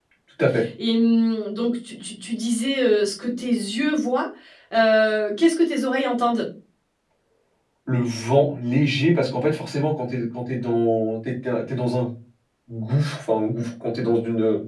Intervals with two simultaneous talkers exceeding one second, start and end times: none

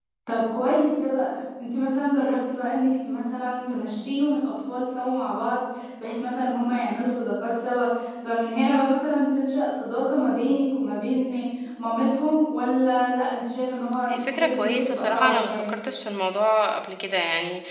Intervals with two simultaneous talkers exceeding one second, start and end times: 14.1-15.7

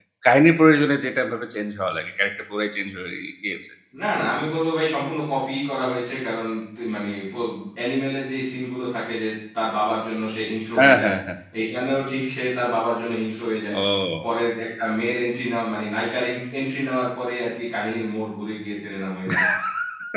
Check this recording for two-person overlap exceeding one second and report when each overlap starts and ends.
none

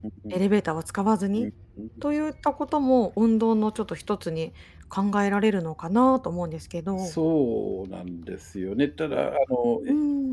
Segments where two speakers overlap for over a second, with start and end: none

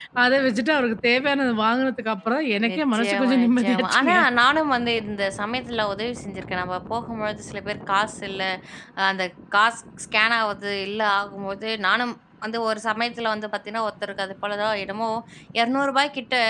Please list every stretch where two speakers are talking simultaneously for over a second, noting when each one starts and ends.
2.7-4.2

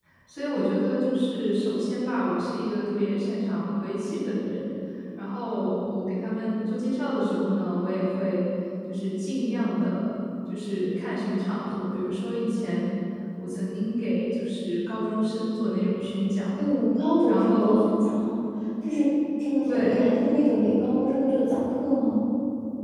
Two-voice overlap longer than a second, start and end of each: none

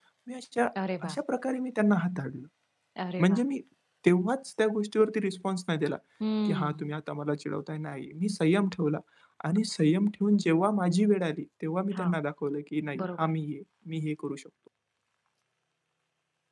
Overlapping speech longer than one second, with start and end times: none

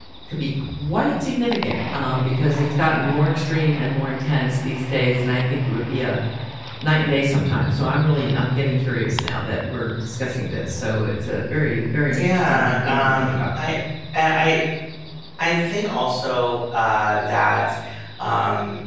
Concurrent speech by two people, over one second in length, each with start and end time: 12.1-13.4

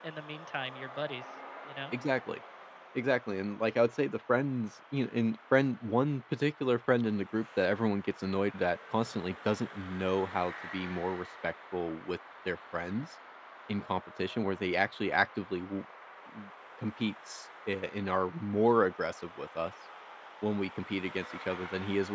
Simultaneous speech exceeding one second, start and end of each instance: none

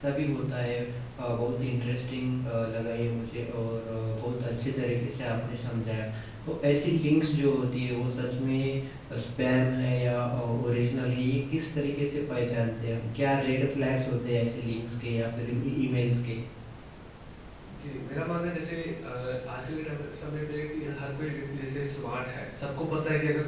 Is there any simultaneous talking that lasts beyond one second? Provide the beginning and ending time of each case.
none

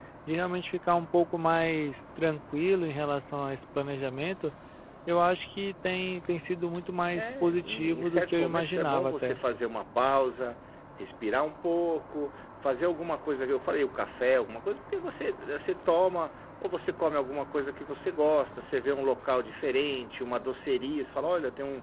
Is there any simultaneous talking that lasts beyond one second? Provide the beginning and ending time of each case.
7.1-9.4

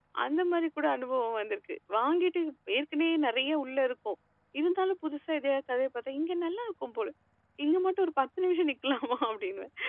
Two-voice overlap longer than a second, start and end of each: none

